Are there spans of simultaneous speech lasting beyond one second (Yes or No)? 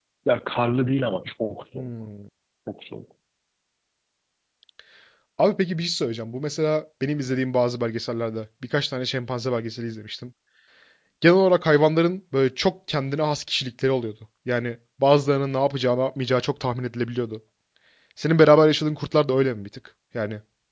No